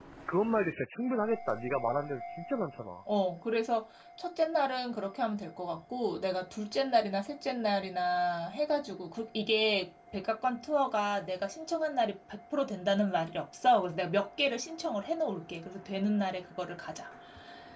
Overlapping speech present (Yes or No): No